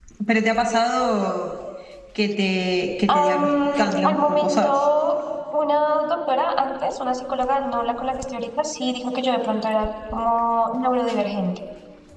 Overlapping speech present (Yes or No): Yes